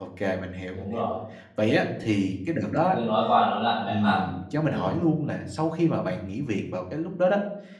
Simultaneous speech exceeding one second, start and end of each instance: none

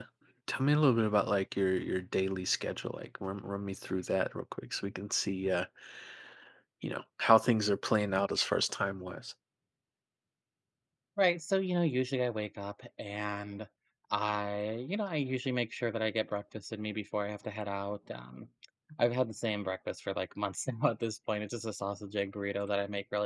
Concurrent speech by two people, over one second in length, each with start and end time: none

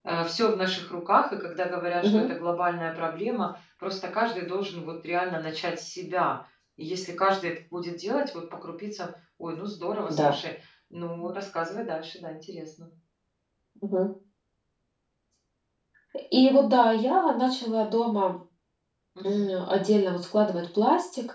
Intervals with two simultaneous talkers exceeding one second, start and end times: none

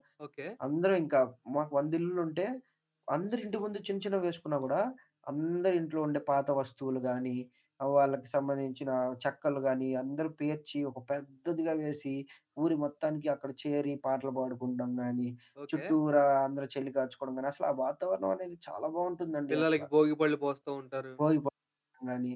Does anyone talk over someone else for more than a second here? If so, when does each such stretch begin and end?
none

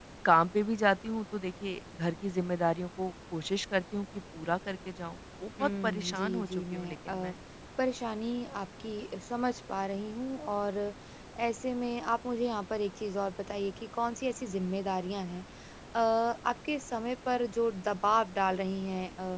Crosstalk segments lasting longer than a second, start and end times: 5.6-7.3

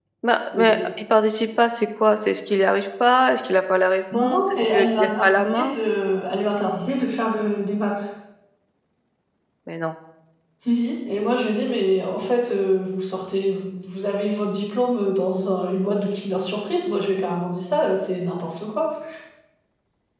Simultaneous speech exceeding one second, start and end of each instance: 4.1-5.7

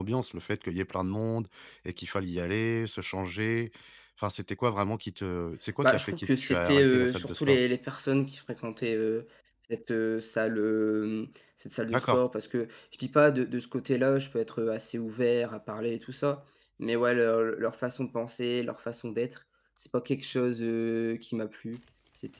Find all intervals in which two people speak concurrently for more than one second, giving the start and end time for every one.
5.8-7.6

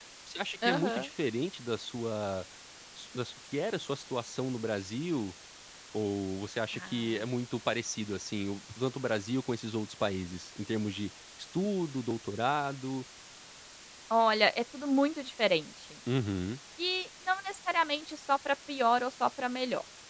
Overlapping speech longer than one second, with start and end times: none

